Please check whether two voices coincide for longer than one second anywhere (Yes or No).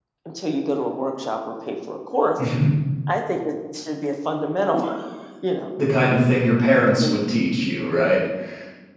No